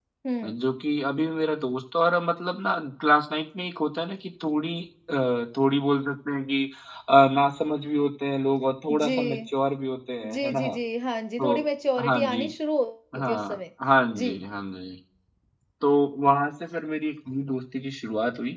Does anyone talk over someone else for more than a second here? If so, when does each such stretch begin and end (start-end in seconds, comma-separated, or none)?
none